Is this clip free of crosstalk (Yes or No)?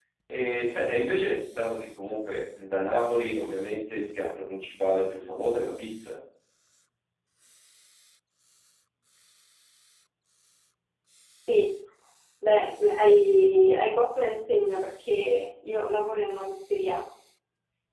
Yes